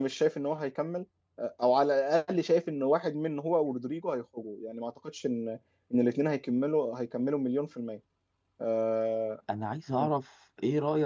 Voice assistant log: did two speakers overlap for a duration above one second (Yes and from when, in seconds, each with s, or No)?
No